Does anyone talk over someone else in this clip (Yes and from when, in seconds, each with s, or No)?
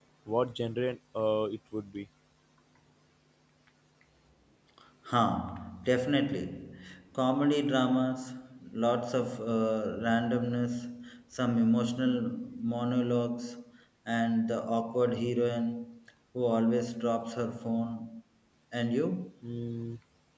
No